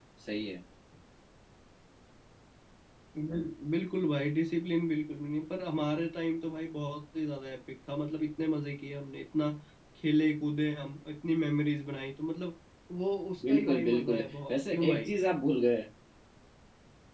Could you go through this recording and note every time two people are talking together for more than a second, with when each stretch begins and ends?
13.5-15.1

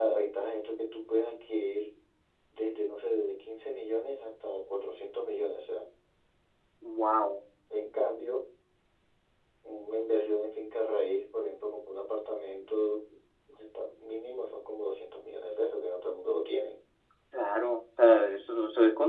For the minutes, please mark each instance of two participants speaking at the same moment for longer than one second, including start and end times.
none

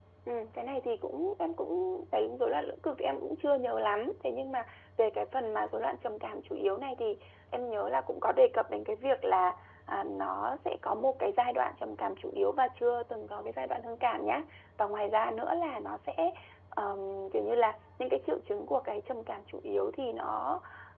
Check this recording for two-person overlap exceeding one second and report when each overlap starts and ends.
none

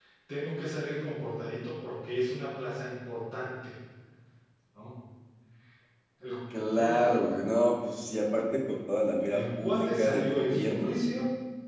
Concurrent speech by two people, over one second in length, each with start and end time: 9.2-11.2

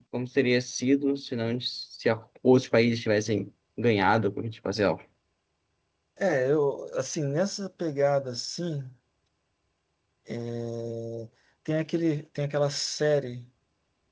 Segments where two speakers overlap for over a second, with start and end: none

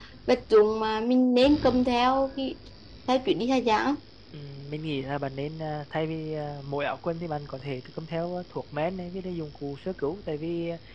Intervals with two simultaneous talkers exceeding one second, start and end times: none

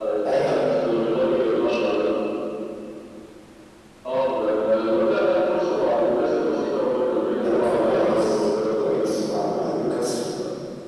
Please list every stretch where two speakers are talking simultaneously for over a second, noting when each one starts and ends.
7.4-9.9

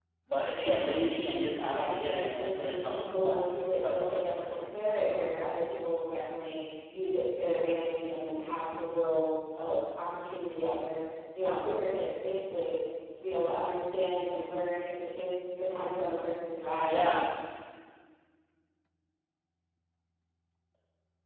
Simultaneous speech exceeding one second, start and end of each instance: 1.6-4.5

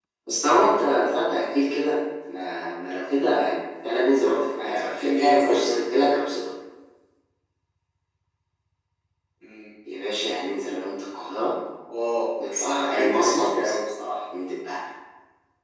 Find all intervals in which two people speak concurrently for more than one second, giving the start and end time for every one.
4.6-5.9, 12.5-13.7

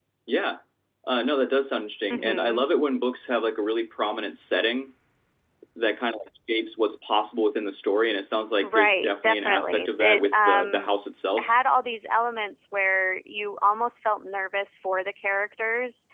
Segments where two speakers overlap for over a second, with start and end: 8.6-10.9

